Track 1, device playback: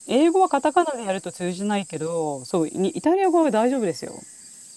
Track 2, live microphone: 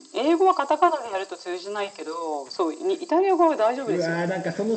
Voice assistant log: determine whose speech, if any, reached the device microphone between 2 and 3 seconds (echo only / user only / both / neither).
echo only